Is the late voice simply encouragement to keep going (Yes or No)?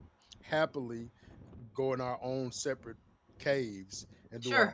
No